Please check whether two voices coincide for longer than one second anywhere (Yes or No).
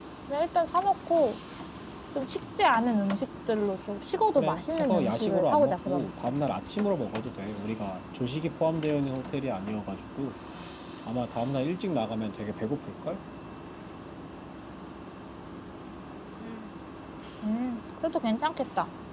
Yes